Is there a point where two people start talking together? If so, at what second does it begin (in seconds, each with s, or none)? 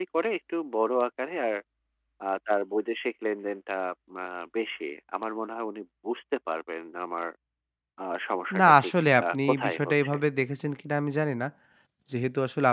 8.6 s